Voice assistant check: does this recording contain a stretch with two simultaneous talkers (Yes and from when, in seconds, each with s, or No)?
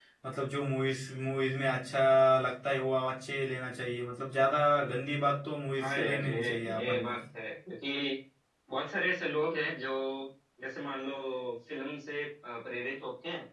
Yes, from 5.8 s